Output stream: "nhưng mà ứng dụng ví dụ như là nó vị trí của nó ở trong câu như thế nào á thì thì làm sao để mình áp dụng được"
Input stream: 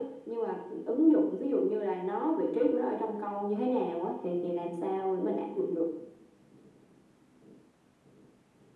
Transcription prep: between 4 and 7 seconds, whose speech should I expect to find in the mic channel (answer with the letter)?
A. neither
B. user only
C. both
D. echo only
D